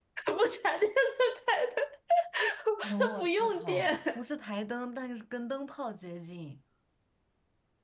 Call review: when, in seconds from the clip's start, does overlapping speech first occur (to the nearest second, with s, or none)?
3 s